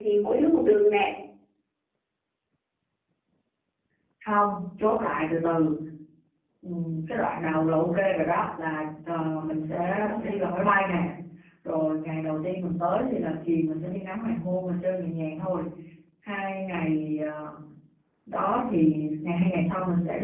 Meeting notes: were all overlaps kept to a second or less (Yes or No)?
Yes